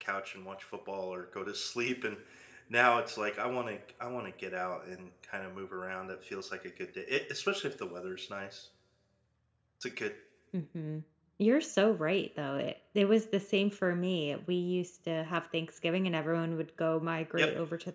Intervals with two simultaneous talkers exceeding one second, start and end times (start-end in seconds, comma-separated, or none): none